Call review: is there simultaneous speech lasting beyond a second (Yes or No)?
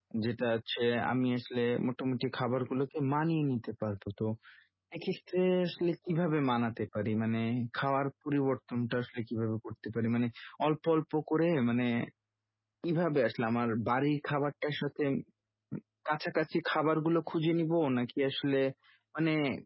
No